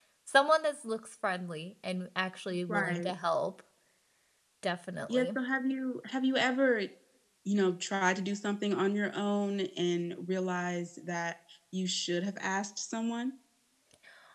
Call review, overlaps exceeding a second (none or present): none